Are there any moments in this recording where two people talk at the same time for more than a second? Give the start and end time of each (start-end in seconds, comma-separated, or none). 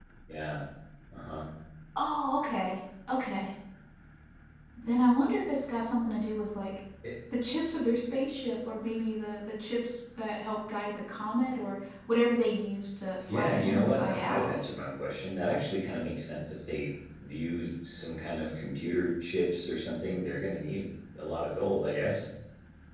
13.3-14.6